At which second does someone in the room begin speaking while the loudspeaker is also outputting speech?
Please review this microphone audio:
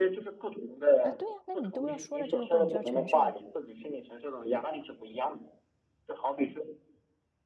1.0 s

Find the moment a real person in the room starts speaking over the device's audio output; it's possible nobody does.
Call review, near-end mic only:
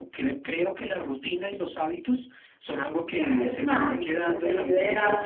3.0 s

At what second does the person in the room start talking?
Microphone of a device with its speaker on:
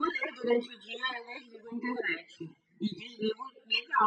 none

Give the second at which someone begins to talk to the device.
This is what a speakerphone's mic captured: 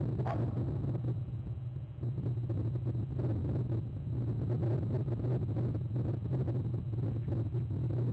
none

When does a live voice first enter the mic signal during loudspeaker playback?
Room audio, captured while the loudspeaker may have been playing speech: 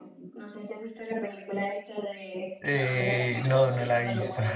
2.6 s

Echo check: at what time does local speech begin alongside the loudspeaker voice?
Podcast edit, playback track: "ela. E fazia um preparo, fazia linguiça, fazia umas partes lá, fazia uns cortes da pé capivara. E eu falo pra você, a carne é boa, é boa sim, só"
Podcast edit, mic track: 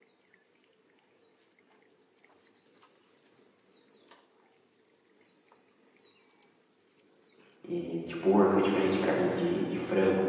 7.7 s

